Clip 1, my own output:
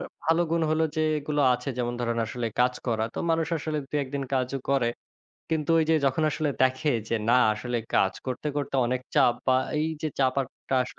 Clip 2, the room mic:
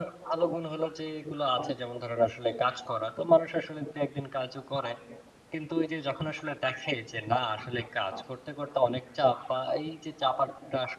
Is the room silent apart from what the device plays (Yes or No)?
Yes